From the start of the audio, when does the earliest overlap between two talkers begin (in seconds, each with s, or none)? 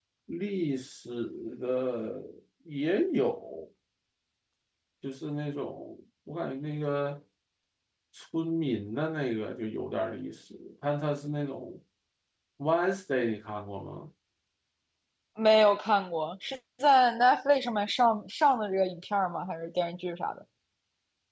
none